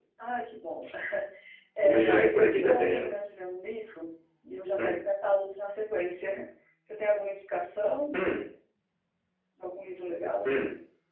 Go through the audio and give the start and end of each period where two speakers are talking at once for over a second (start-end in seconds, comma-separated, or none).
1.8-3.1